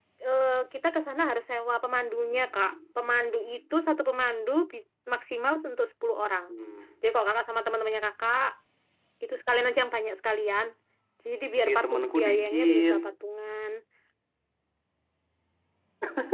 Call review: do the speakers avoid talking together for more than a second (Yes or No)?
No